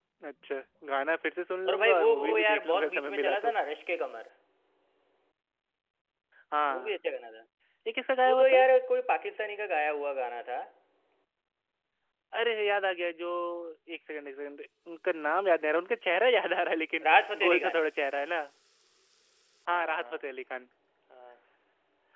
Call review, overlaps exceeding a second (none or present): present